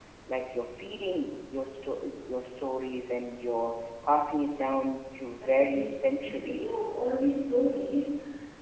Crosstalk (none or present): present